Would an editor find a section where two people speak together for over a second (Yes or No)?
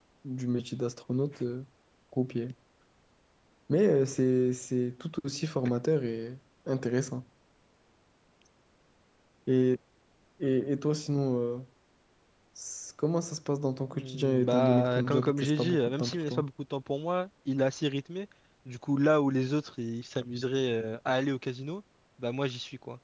Yes